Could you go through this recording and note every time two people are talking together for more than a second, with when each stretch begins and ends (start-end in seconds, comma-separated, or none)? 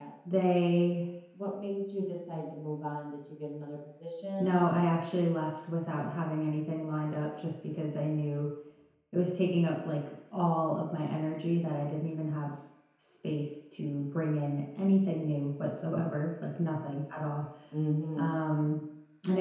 none